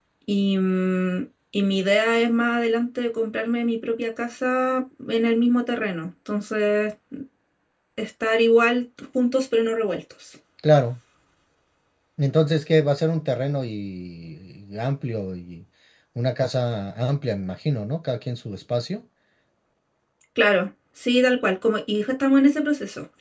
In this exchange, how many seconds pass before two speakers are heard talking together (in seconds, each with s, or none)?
none